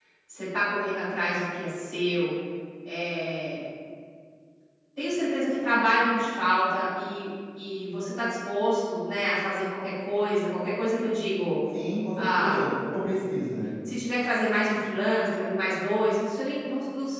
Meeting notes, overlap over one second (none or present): none